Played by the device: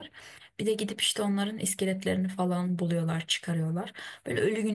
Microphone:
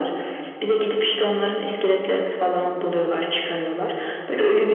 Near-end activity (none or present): none